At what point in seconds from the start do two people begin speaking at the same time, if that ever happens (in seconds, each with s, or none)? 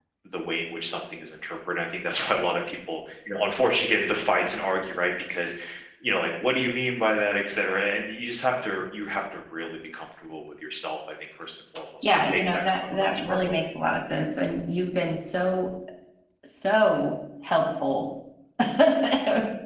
12.0 s